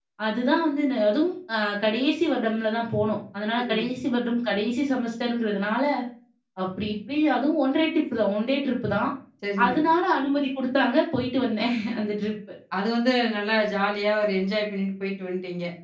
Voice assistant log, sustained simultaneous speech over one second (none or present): none